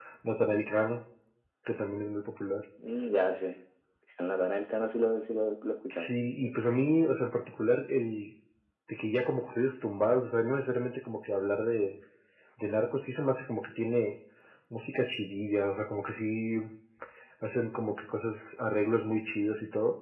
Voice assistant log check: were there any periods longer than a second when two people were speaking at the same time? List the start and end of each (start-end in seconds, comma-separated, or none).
none